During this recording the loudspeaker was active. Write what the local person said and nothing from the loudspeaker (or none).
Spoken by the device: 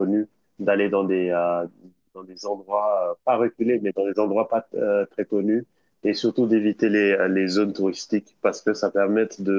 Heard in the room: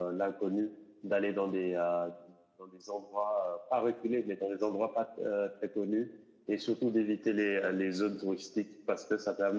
none